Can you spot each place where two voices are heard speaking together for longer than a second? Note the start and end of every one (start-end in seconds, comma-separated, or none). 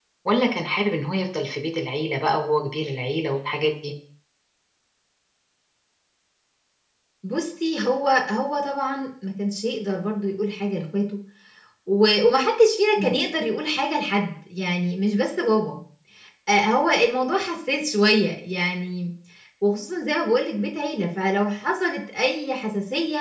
none